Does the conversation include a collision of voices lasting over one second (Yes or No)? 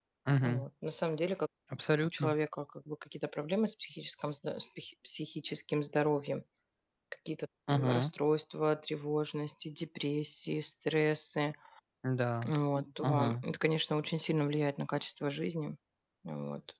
No